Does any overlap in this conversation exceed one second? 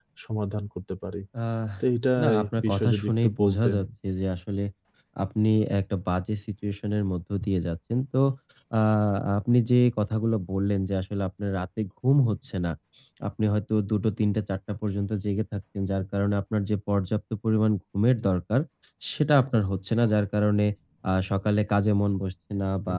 Yes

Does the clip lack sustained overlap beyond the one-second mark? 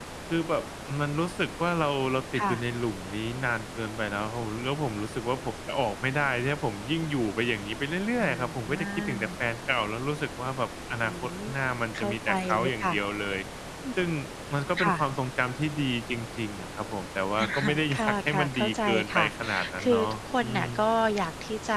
No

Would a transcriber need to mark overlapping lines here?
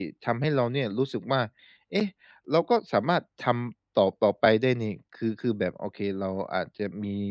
No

